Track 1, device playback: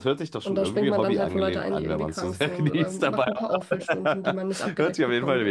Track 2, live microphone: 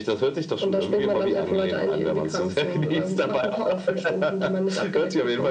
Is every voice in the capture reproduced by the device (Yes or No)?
Yes